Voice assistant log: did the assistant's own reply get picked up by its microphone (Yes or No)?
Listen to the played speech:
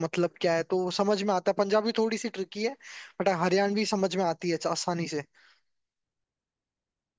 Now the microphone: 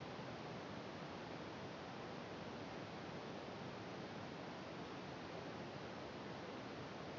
No